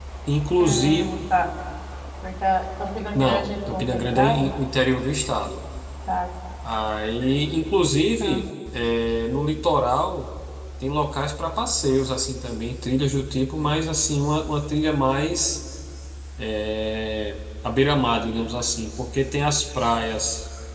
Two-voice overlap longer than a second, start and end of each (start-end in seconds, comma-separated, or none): 3.2-4.5